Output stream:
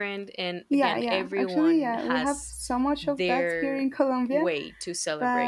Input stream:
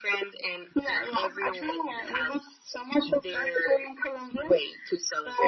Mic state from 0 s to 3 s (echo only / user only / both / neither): echo only